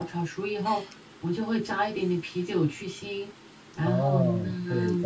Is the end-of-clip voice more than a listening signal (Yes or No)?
Yes